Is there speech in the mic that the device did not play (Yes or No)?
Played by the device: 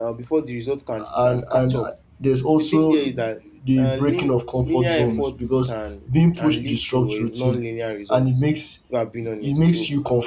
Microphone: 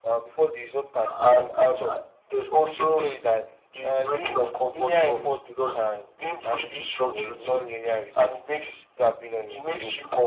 No